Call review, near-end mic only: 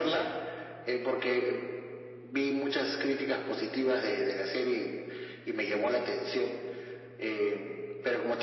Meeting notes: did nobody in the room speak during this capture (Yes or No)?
Yes